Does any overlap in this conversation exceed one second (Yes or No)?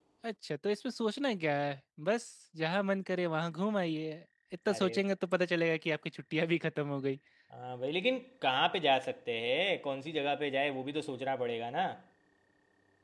No